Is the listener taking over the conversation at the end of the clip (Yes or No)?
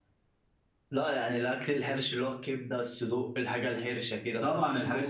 Yes